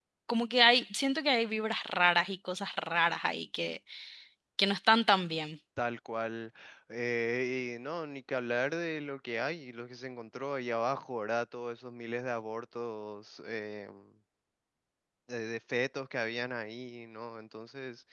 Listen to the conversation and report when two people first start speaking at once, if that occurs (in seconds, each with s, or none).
none